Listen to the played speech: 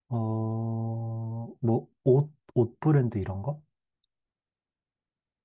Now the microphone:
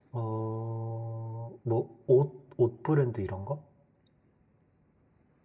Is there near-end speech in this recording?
No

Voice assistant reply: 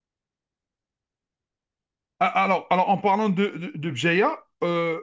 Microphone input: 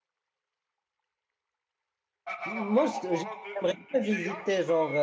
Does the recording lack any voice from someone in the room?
No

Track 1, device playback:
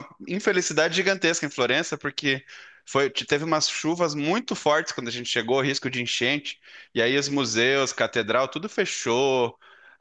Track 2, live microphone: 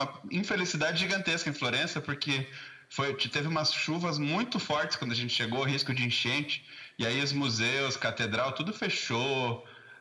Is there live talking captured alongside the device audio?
No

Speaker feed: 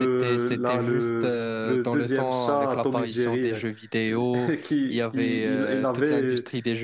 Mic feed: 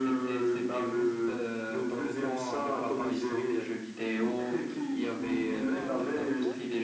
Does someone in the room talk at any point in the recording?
Yes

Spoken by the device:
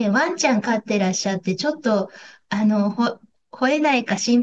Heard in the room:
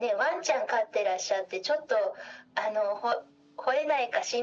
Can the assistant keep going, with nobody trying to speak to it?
Yes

